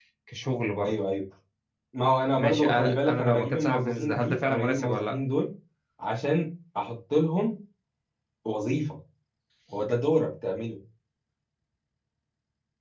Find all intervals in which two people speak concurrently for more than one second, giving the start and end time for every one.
2.3-5.1

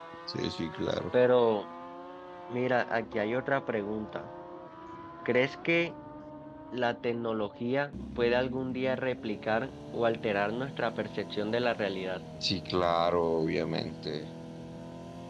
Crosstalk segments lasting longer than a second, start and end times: none

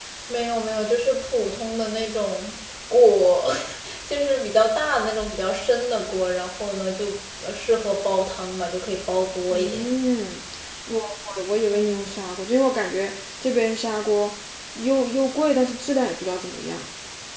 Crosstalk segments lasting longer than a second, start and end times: none

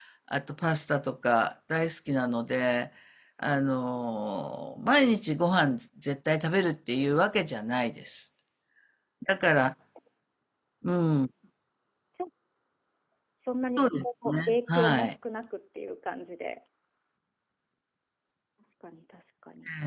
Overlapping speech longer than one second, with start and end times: 13.8-15.2

